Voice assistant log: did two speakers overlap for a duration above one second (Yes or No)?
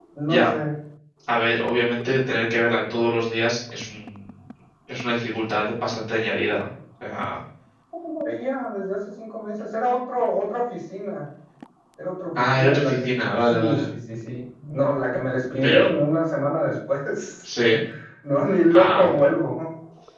Yes